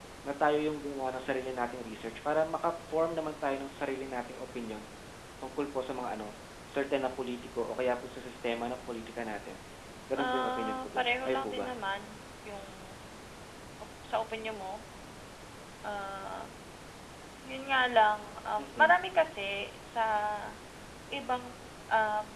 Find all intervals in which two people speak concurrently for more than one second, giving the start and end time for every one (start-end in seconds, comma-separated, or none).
10.2-11.7